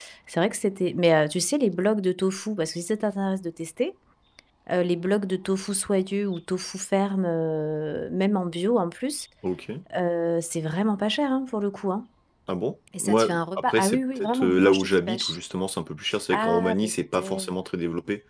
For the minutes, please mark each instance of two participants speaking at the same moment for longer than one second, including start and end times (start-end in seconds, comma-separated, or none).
13.0-15.4, 16.3-17.5